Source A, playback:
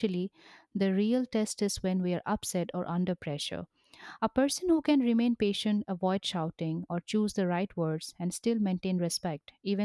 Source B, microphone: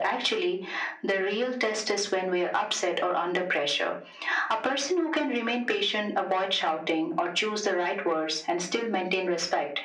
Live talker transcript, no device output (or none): none